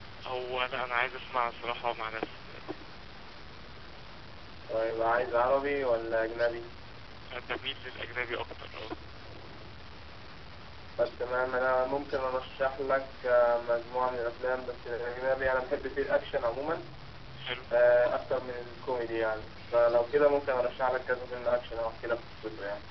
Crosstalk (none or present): none